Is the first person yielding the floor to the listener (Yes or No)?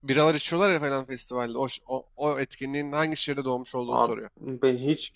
Yes